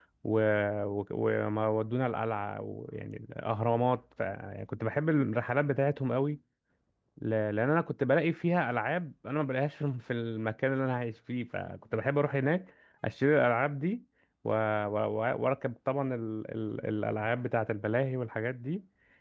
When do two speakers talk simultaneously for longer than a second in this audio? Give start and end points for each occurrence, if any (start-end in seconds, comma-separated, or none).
none